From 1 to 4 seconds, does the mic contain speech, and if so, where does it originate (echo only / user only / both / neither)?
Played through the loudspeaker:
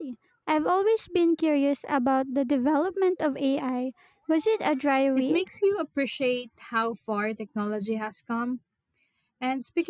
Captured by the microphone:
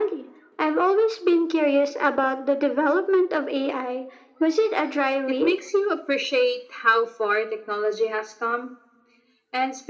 echo only